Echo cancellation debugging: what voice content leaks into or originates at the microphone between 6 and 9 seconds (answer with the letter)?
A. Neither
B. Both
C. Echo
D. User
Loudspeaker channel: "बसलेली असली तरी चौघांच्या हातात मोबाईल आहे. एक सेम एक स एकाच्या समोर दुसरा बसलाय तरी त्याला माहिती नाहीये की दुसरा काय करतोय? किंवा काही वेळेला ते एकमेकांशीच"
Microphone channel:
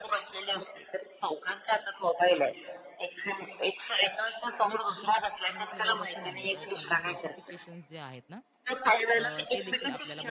B